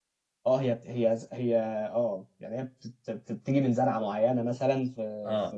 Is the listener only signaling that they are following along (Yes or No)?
No